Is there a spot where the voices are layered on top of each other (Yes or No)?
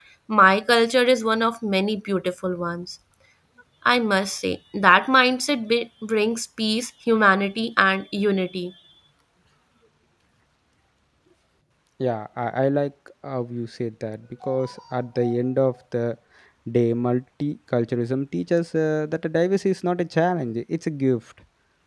No